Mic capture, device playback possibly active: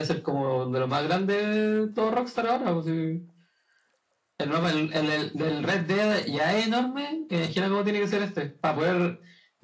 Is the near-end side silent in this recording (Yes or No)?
Yes